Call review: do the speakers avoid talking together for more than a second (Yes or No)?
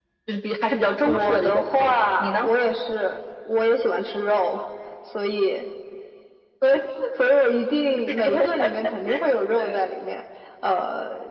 No